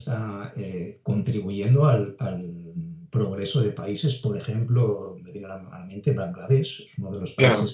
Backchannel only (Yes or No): Yes